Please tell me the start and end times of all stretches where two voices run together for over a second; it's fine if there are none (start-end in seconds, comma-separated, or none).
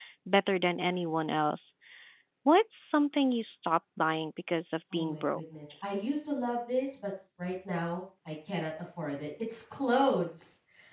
none